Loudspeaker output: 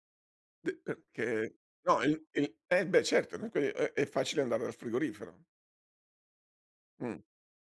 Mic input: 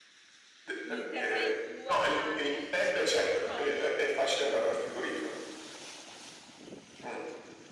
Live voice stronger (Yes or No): No